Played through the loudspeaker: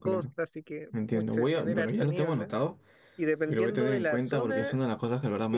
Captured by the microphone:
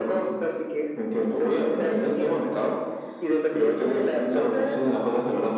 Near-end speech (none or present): none